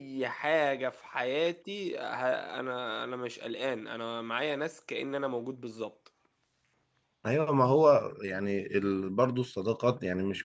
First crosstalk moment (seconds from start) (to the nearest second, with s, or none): none